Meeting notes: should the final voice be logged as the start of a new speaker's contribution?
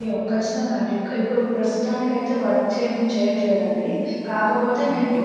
No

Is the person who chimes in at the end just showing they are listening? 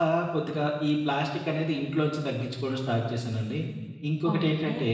No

